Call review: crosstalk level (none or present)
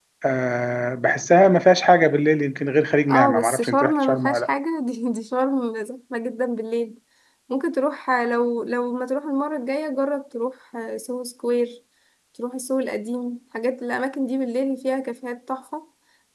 present